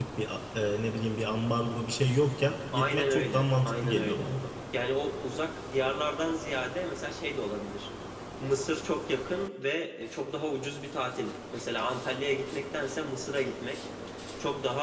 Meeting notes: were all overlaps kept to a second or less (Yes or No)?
No